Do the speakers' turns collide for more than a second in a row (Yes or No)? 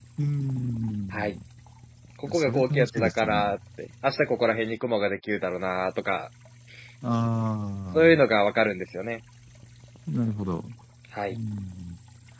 Yes